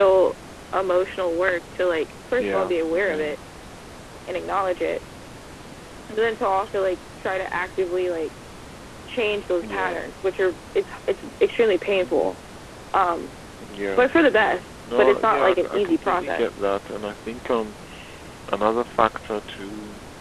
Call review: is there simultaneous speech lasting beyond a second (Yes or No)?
Yes